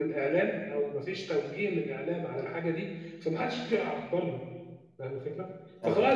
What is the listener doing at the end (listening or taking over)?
listening